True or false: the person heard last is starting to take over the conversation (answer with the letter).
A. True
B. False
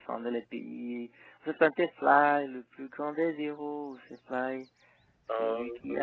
B